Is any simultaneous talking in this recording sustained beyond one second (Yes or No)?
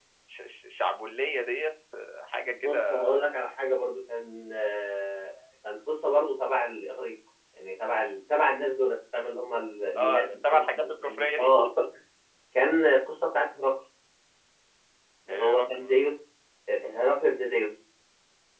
Yes